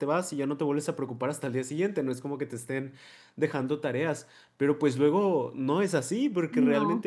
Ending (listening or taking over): listening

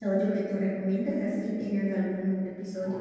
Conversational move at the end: taking over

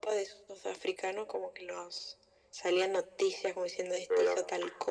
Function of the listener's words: taking over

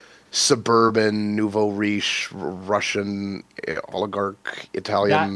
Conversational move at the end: taking over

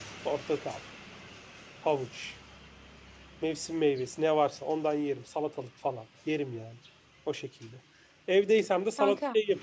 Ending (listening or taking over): taking over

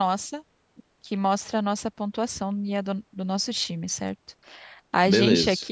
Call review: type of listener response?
listening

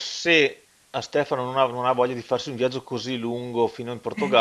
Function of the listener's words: listening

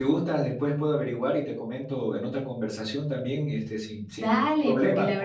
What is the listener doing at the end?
taking over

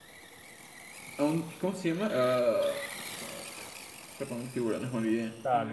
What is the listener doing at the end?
taking over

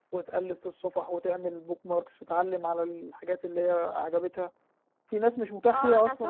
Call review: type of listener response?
taking over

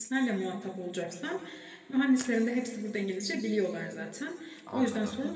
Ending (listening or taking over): listening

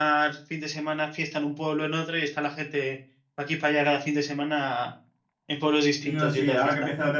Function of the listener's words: taking over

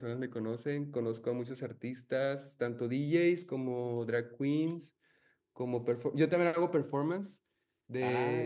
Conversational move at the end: taking over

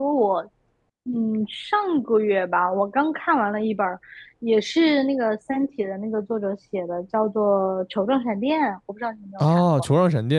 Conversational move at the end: taking over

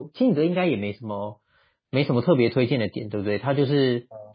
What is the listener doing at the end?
listening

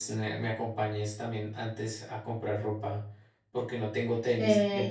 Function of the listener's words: taking over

